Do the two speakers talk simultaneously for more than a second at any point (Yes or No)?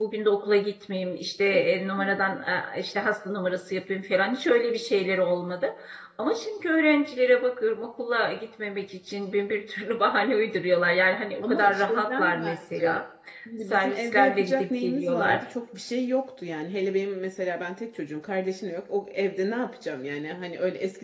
Yes